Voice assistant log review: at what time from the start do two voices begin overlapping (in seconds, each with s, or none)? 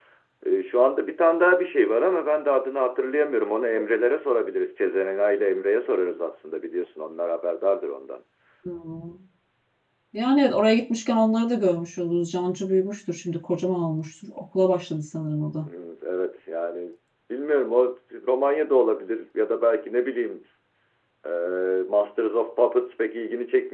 none